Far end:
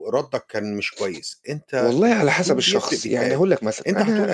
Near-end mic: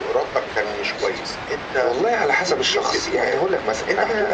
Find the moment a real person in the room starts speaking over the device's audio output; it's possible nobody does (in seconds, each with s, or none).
none